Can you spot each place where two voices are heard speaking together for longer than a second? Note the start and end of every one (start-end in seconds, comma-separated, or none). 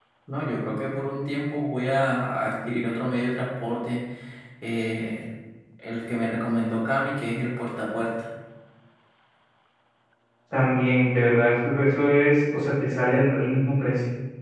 none